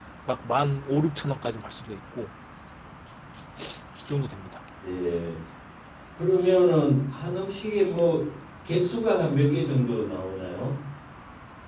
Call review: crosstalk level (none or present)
none